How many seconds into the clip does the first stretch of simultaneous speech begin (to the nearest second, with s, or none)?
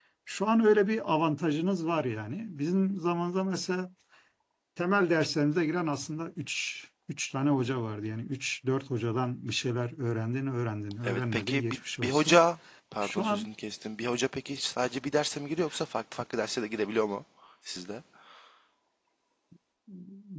11 s